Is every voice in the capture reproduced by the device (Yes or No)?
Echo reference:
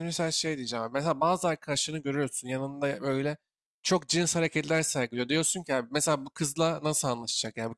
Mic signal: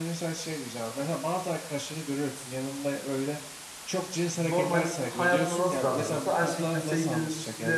No